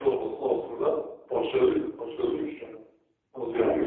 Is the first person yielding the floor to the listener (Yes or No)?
Yes